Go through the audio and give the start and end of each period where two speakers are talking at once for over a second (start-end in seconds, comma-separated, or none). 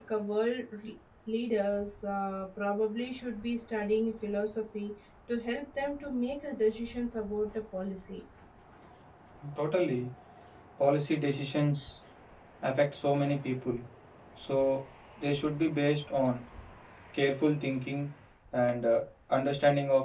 none